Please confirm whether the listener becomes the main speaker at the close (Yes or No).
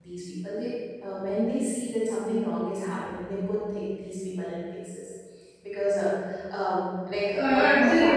Yes